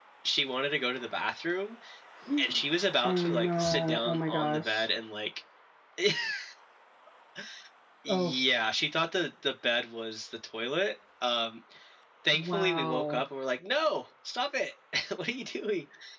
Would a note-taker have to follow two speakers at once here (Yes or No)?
Yes